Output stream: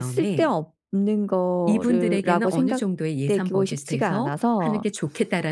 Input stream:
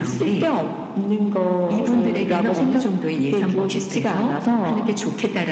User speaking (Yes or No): No